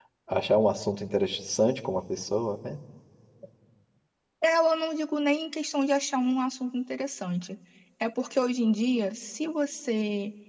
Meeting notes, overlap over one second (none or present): none